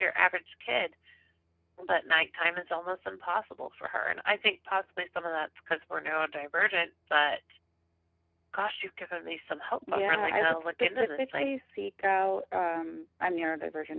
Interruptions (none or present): present